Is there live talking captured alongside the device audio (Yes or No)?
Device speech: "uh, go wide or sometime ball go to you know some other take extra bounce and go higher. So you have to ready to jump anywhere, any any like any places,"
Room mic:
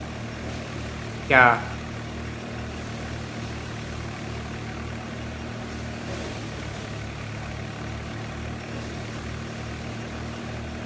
Yes